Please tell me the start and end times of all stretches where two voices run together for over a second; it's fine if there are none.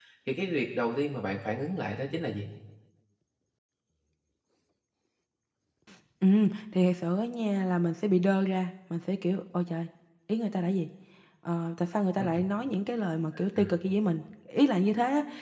none

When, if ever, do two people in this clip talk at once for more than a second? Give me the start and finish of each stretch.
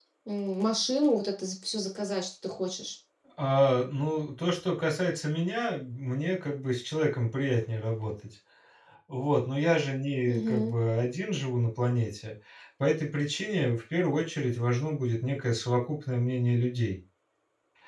none

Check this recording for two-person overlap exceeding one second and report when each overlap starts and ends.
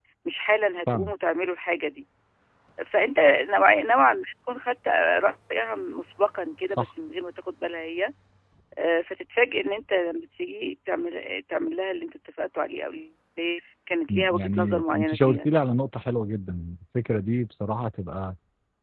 14.1-15.6

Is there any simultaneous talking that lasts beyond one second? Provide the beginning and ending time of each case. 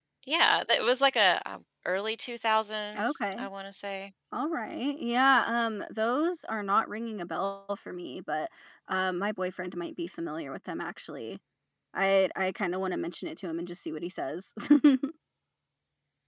none

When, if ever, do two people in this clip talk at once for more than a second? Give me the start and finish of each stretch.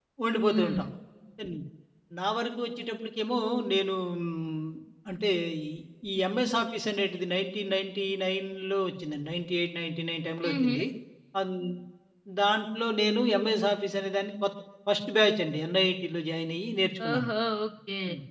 none

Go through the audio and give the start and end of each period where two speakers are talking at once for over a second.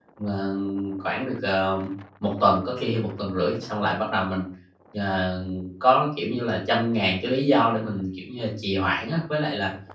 none

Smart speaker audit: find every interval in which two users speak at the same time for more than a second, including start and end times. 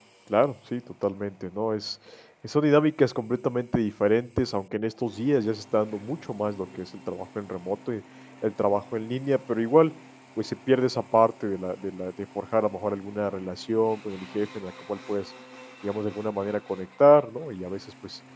none

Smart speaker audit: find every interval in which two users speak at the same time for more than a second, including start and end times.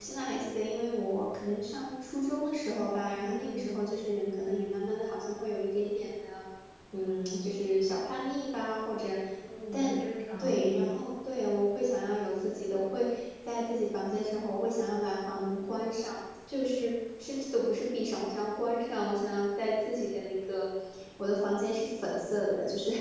none

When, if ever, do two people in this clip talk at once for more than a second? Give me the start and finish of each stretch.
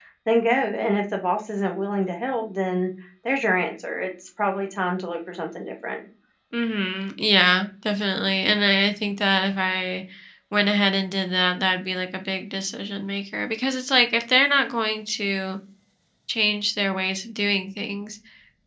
none

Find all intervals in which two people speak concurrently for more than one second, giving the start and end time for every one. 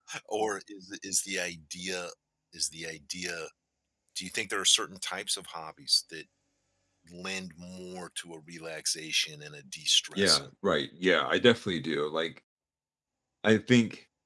none

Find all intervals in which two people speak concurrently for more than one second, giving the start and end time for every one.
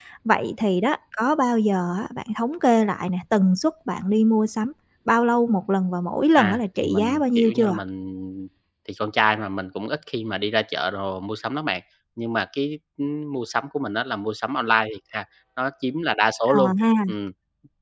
6.3-7.8

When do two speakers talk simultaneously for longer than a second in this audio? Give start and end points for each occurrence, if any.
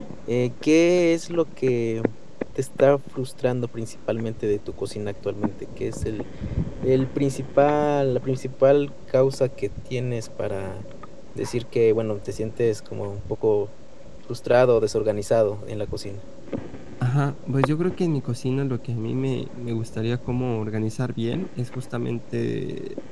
none

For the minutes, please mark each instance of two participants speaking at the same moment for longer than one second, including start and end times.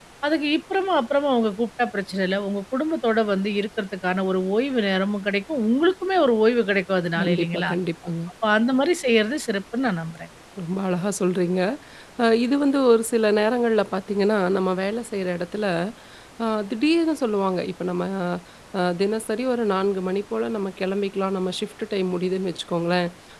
none

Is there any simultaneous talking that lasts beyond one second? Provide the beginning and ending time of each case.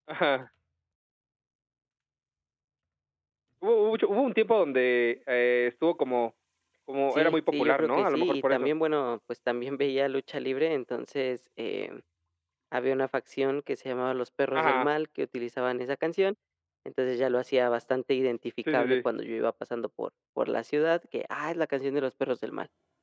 7.1-8.7

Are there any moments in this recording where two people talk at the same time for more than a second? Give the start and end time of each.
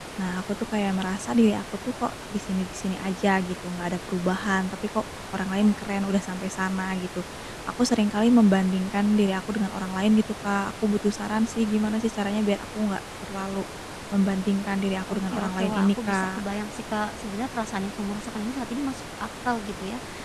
15.1-16.4

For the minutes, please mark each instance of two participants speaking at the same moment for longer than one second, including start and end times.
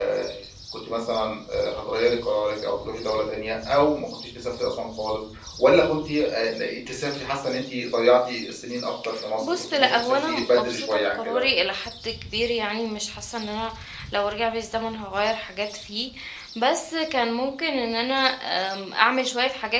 9.4-11.4

